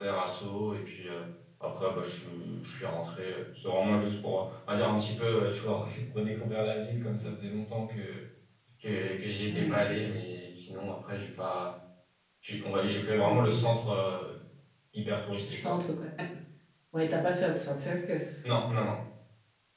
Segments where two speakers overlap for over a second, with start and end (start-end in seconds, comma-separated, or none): none